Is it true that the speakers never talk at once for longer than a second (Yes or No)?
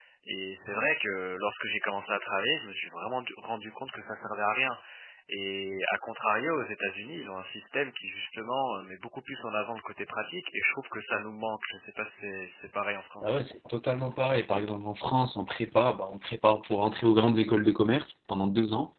Yes